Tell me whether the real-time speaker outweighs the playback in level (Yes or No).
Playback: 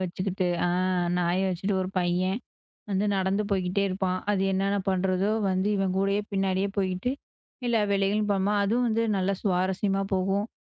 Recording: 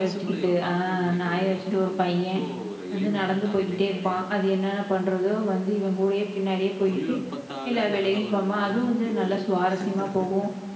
No